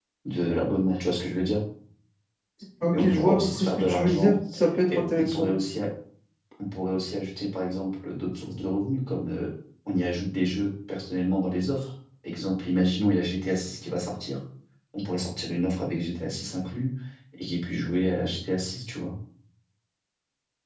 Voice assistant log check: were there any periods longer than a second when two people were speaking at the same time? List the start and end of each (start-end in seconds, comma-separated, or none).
2.9-4.3